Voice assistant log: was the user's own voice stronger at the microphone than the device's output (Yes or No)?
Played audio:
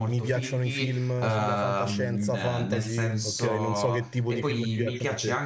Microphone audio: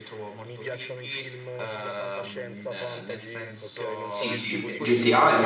Yes